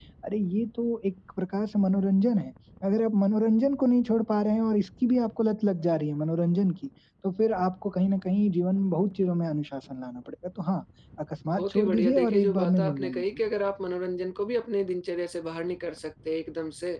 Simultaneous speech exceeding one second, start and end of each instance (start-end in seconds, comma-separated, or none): 11.5-13.2